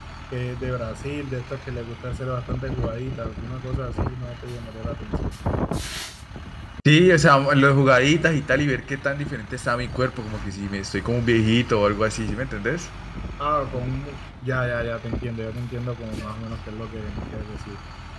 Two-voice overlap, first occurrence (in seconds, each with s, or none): none